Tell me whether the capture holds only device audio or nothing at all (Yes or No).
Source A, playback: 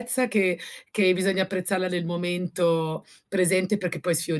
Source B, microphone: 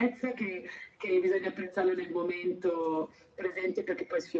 Yes